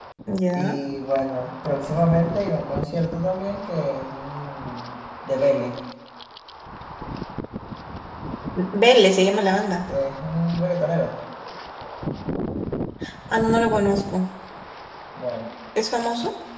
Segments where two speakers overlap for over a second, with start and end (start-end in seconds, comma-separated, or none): none